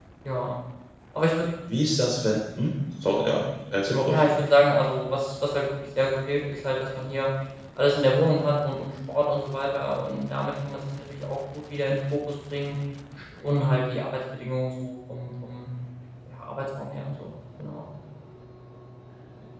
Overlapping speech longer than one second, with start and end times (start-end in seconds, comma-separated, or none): none